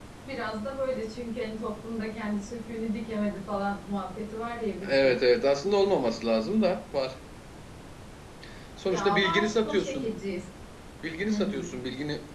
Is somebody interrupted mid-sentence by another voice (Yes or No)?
Yes